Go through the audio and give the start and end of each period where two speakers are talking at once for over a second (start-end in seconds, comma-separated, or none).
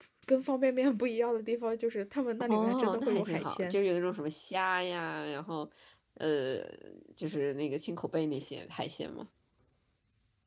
2.4-3.8